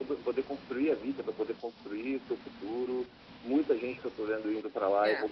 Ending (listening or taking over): listening